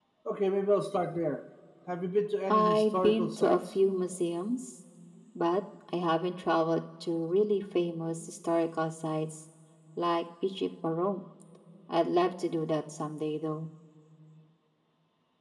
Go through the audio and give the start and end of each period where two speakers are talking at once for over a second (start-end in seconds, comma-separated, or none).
2.5-3.8